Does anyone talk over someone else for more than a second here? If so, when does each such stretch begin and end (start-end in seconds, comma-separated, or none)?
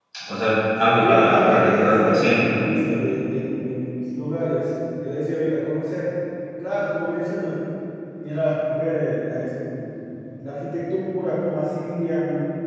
1.0-2.6